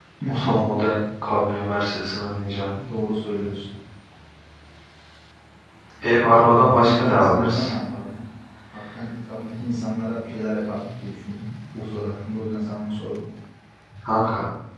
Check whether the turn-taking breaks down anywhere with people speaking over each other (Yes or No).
Yes